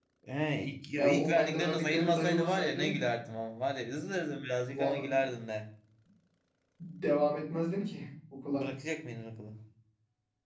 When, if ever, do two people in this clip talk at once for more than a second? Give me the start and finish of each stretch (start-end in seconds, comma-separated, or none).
0.9-3.0